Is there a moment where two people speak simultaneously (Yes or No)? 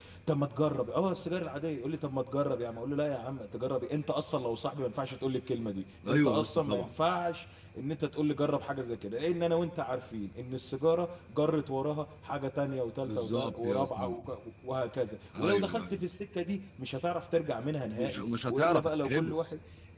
Yes